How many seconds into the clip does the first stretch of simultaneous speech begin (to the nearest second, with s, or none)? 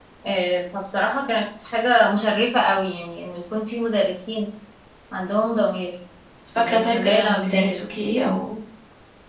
7 s